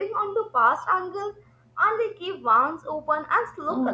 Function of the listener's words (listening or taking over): taking over